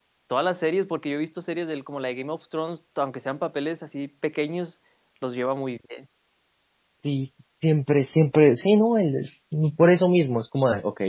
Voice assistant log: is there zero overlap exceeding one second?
Yes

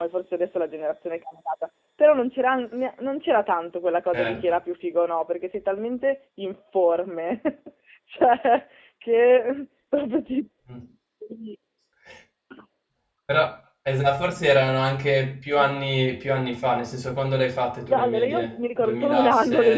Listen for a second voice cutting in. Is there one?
Yes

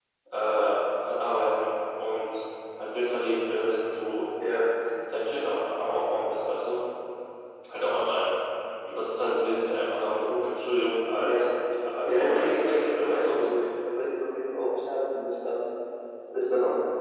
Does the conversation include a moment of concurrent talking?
Yes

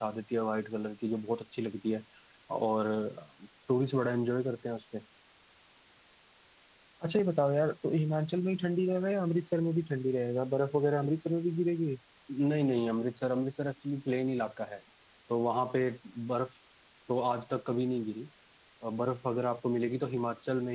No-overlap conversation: Yes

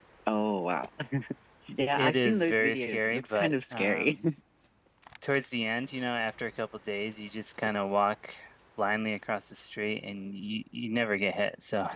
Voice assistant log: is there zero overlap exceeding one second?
No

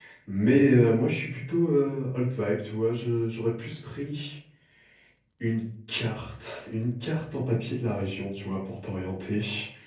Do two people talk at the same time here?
No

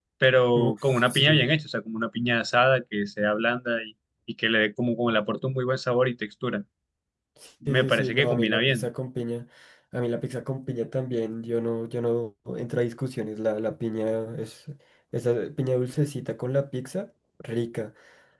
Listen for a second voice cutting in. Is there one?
Yes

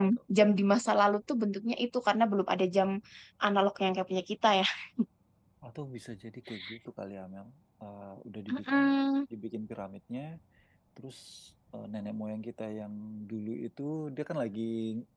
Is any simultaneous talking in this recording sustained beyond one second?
No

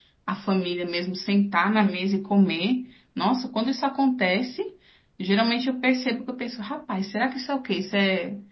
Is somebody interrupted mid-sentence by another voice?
No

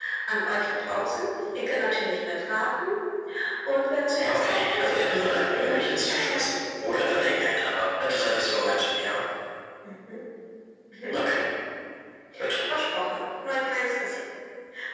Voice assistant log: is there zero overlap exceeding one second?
No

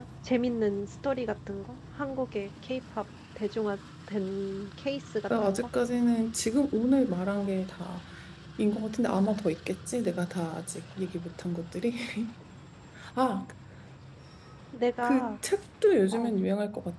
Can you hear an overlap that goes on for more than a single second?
No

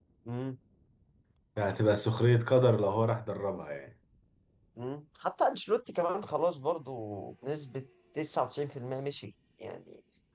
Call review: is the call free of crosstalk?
Yes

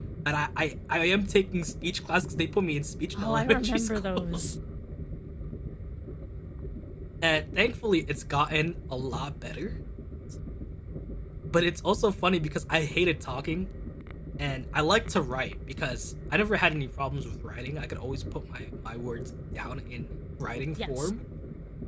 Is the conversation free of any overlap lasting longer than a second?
No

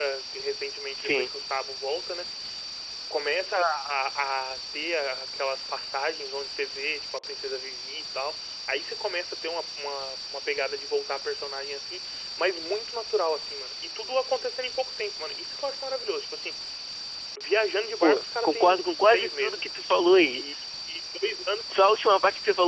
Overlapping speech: Yes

